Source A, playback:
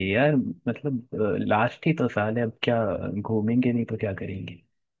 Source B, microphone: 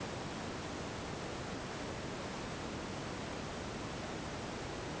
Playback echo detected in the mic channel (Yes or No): No